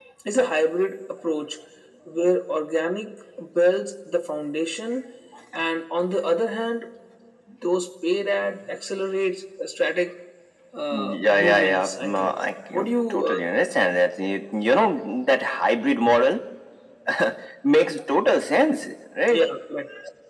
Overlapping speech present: Yes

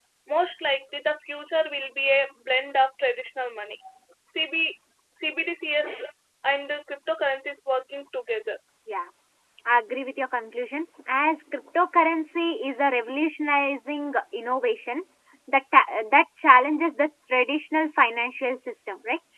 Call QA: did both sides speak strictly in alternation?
Yes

